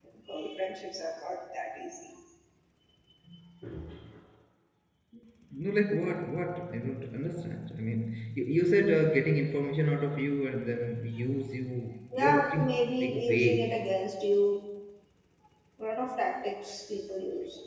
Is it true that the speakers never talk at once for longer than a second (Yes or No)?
No